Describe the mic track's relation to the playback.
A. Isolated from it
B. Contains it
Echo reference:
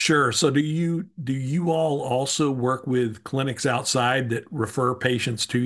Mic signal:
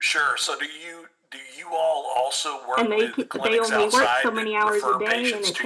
B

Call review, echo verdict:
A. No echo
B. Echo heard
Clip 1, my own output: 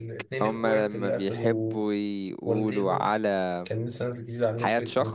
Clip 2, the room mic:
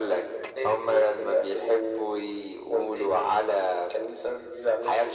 B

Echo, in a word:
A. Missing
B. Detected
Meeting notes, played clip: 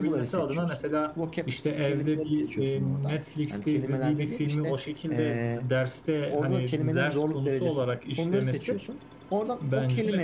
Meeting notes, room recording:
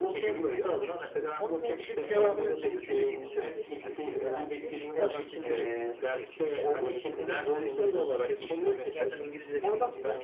B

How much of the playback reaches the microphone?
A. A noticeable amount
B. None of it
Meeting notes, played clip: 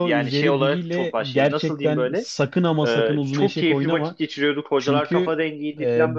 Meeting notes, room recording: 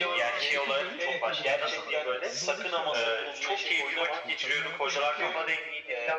A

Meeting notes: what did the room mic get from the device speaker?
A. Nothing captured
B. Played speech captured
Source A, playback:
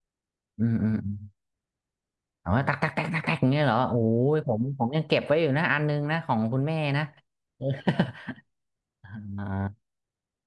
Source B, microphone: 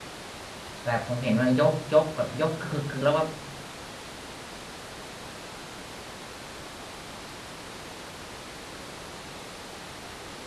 A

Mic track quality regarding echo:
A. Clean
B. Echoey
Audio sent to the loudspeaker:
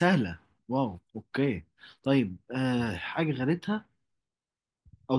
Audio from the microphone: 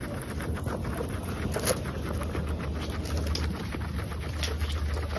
A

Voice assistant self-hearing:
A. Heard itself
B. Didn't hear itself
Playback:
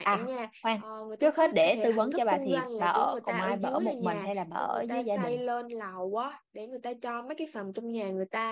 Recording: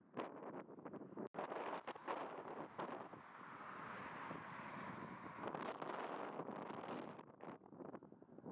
B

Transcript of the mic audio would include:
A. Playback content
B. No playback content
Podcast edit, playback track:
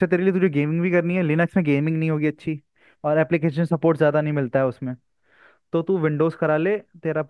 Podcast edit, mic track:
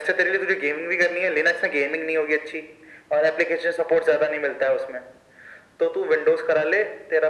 A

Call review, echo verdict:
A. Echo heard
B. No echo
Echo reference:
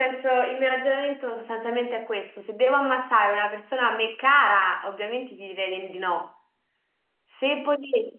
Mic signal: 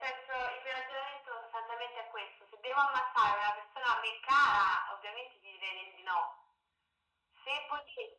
A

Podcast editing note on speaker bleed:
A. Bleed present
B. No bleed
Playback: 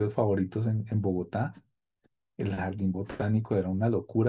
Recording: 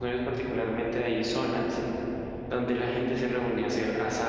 B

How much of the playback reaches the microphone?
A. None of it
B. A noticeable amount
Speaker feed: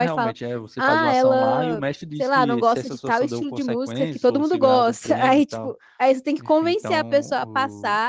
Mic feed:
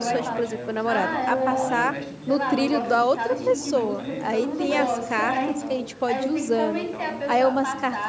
B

